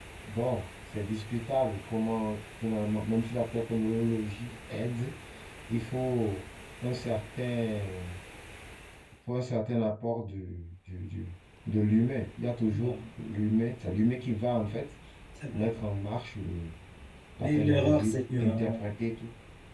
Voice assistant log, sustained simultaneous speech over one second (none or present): present